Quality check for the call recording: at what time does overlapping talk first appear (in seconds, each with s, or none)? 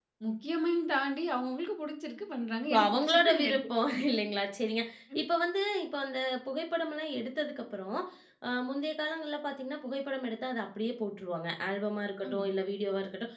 2.7 s